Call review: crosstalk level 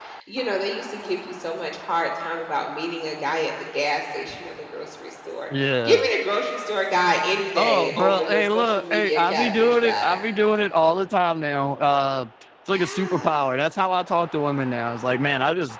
present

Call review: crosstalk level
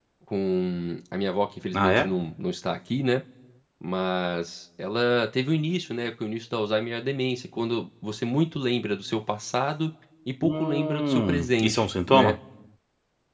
present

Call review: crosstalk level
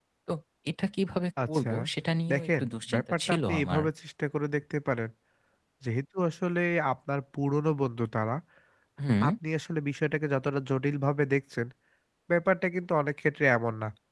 present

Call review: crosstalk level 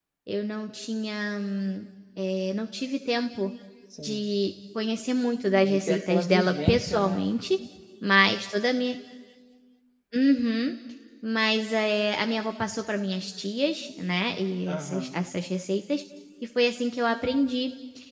present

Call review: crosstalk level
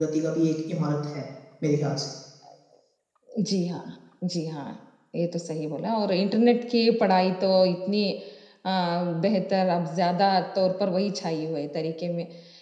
none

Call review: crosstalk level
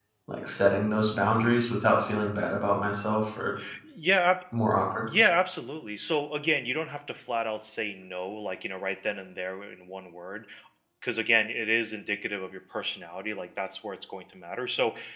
none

